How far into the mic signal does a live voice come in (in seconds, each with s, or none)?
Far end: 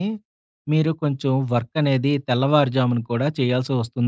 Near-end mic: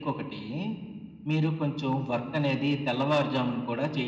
none